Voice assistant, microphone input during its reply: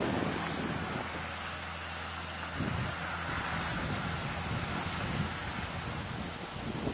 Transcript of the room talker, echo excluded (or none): none